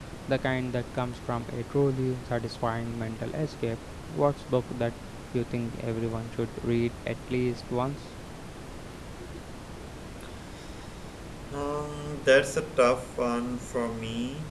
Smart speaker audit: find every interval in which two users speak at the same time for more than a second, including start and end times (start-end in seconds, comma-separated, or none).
none